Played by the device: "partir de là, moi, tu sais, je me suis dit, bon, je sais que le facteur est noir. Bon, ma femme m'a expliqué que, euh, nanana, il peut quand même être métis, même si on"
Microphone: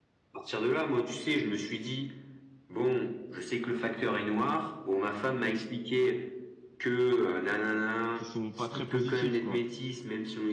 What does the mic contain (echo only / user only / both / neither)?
both